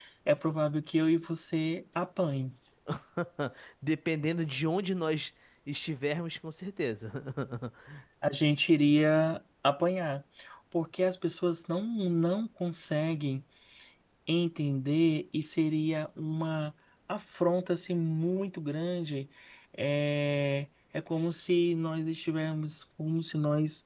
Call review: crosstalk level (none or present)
none